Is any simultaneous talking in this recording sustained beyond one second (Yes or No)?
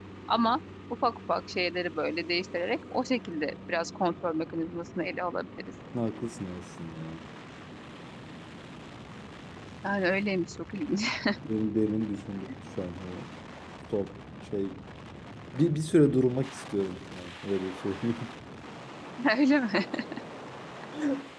No